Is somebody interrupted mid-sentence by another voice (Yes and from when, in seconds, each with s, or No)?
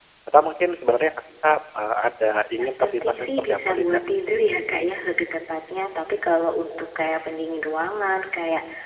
Yes, from 2.6 s